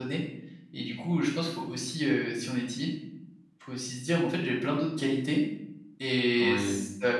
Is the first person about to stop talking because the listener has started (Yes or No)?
No